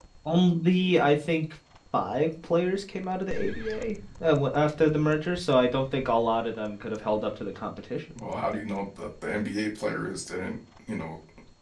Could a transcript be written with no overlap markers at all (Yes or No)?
Yes